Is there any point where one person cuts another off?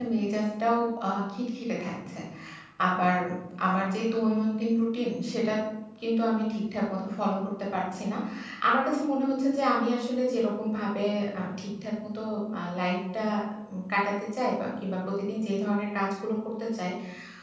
No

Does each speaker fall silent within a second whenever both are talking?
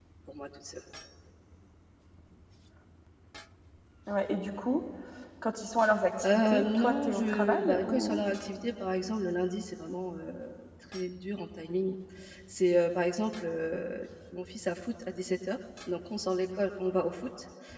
No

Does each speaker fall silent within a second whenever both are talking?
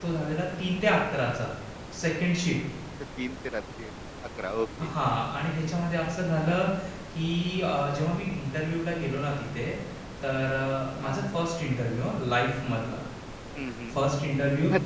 Yes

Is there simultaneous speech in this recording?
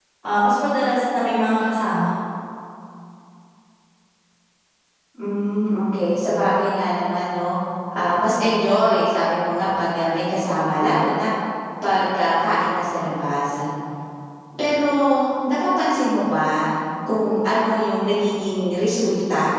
No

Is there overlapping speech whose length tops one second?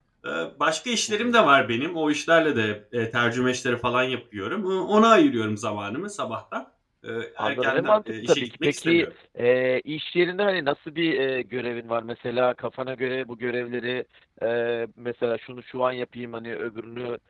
Yes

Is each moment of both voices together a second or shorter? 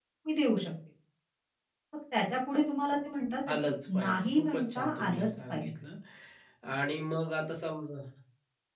No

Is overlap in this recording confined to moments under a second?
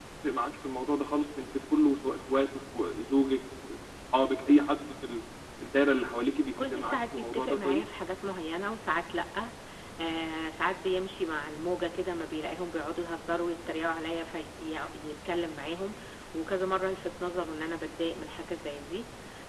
No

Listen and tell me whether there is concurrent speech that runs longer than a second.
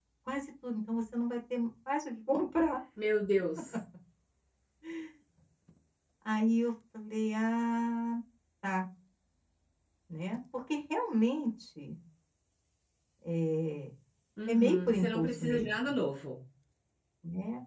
Yes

